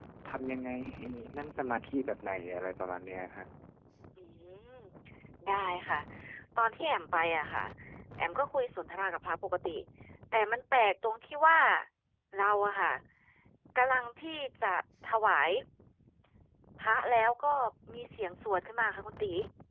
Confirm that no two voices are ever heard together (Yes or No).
Yes